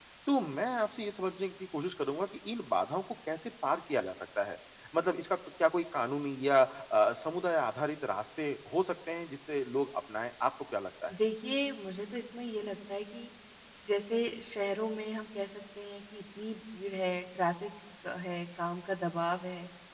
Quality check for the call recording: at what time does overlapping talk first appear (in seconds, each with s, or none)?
none